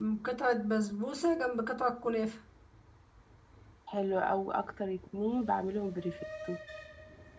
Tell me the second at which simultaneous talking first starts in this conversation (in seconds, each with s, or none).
none